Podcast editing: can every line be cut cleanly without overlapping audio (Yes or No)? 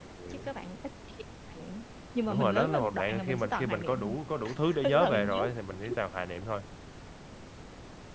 No